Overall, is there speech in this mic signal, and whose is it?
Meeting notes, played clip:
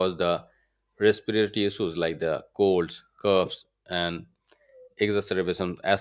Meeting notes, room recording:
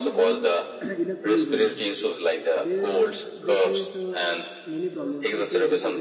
both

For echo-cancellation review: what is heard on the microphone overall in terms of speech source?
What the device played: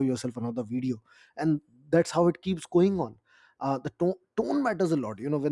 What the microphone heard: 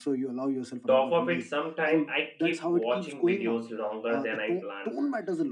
both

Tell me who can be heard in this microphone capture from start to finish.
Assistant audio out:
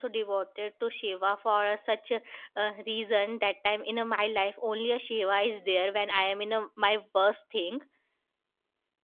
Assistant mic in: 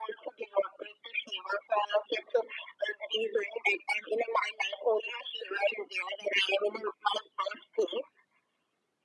echo only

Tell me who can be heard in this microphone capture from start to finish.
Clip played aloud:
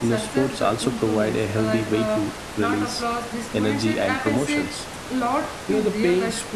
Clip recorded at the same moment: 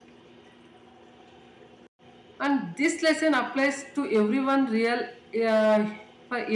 user only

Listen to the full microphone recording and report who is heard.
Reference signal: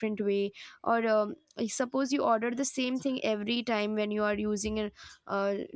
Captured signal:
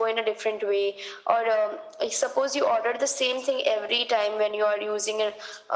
echo only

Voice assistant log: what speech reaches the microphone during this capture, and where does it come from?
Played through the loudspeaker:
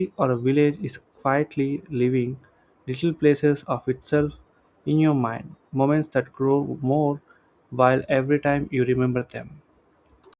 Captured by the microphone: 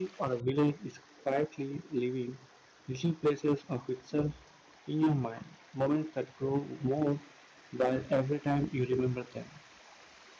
echo only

